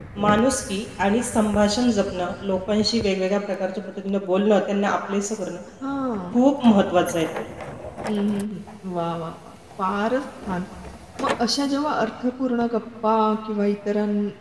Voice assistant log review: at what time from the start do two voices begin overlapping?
none

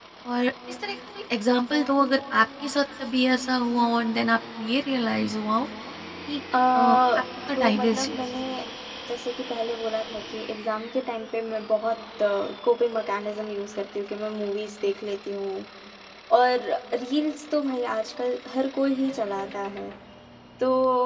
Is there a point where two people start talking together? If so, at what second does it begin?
6.7 s

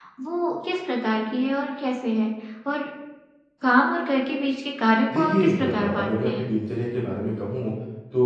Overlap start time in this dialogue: 5.1 s

